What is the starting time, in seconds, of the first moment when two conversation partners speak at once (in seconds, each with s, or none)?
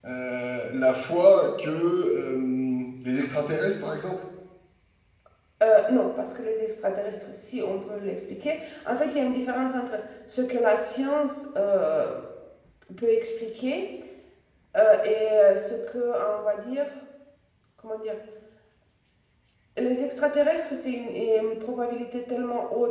none